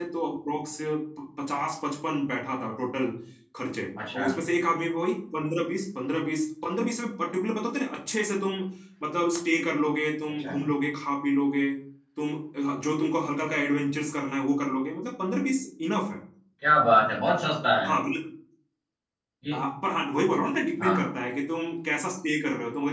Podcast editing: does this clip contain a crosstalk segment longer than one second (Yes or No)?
No